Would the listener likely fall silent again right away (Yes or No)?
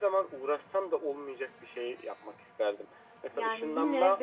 No